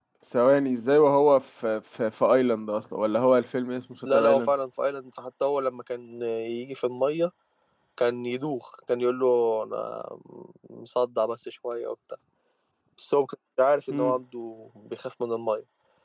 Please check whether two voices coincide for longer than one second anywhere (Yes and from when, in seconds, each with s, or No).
No